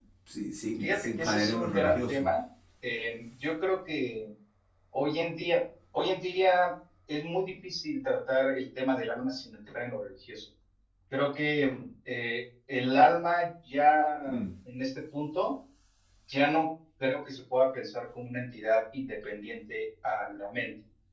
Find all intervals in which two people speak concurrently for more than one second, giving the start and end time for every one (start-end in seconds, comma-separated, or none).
0.8-2.3